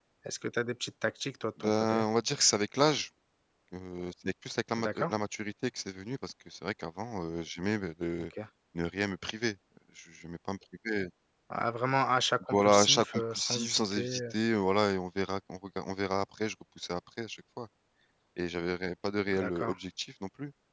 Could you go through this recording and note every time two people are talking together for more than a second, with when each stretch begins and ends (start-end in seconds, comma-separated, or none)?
12.5-14.0